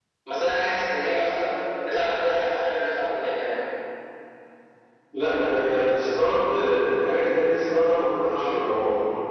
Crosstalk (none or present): none